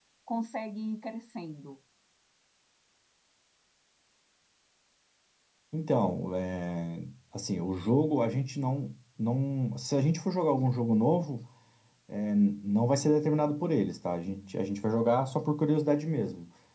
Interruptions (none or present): none